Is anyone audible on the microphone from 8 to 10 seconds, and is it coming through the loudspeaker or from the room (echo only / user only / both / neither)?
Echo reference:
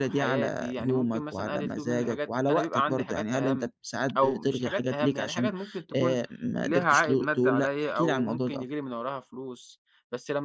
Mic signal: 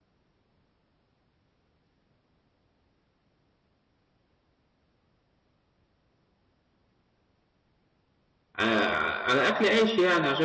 user only